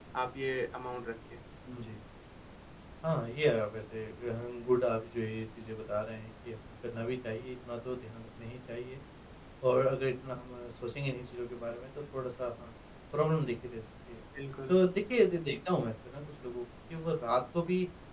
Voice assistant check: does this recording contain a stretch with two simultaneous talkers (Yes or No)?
No